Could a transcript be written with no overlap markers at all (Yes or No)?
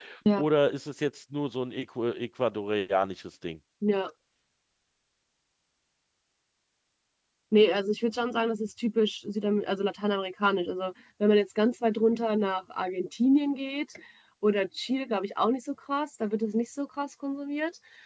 Yes